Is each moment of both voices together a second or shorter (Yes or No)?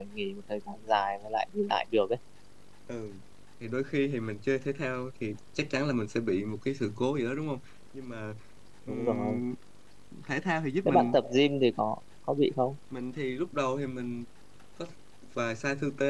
Yes